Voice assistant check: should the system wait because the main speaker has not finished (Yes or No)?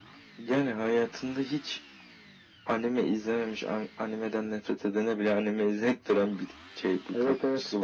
No